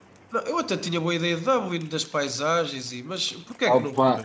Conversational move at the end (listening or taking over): taking over